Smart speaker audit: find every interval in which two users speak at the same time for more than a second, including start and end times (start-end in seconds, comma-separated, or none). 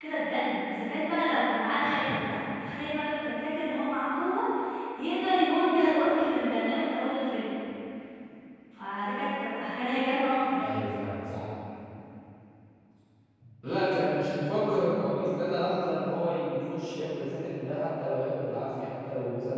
none